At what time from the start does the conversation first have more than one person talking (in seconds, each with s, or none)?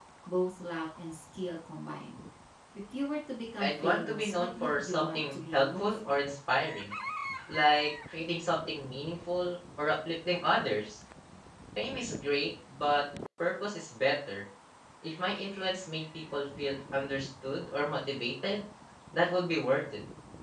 3.6 s